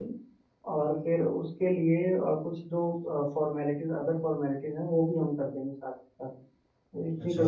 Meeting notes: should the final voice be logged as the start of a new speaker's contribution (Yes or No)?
Yes